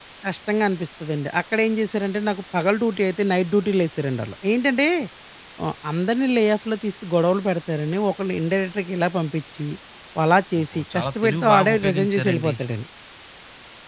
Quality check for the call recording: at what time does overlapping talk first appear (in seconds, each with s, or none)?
10.6 s